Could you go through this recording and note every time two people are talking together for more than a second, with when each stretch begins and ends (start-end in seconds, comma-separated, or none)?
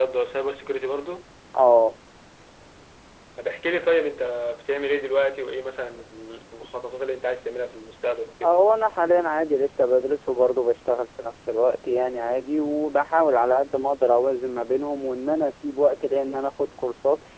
none